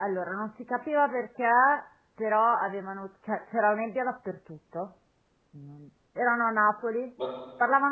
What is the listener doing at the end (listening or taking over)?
listening